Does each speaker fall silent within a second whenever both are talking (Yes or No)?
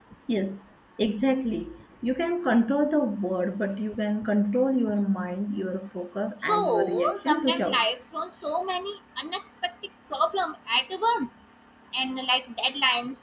No